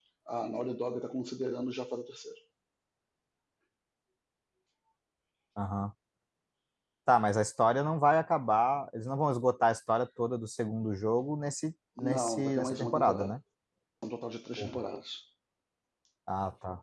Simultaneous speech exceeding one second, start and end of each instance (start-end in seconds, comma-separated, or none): 12.0-13.3